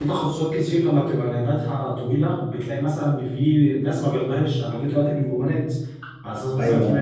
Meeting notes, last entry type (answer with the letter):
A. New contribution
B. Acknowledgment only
B